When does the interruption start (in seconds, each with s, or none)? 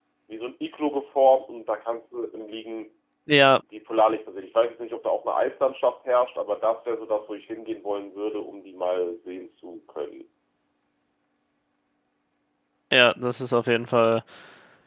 none